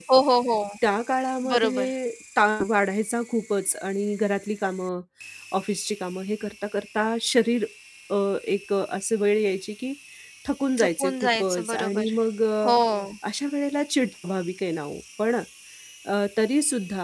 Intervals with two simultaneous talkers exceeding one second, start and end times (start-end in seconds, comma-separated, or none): 10.8-12.1